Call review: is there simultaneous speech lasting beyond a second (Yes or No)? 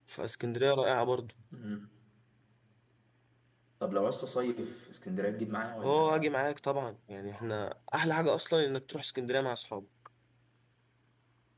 No